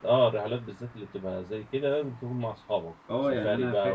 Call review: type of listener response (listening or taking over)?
taking over